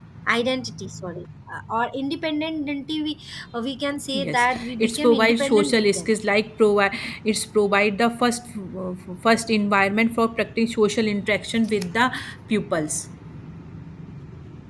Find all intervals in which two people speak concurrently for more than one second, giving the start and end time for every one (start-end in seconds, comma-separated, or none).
4.2-6.1